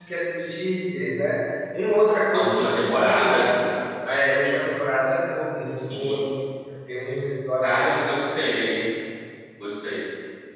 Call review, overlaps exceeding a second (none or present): present